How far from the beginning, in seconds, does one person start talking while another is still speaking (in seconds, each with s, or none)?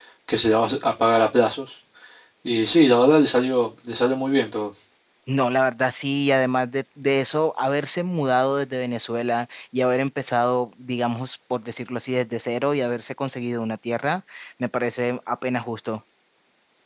none